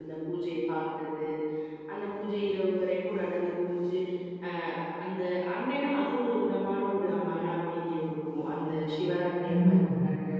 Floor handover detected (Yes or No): No